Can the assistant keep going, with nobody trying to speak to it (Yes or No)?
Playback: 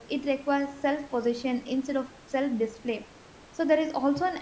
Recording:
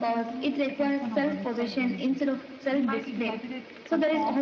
No